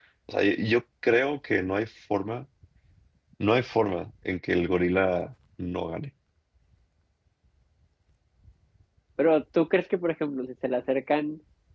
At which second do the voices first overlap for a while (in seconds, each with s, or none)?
none